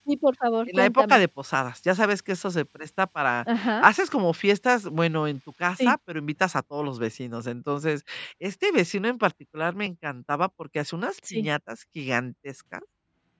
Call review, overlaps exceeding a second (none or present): none